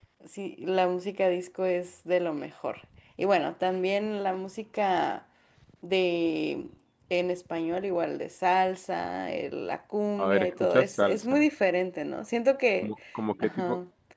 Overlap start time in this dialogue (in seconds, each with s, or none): 10.2 s